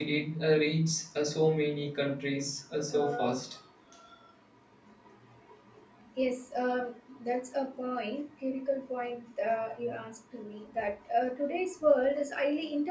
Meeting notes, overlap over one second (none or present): none